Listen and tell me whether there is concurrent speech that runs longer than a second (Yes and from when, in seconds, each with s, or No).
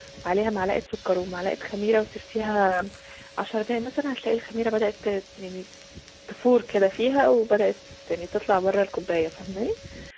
No